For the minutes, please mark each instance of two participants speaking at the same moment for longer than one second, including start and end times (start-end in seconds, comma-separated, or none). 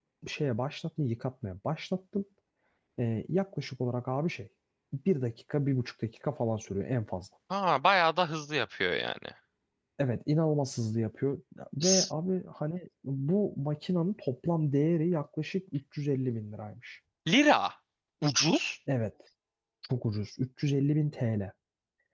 none